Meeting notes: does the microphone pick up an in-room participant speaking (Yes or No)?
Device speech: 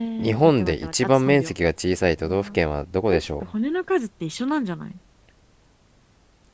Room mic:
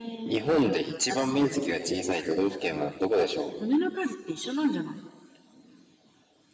No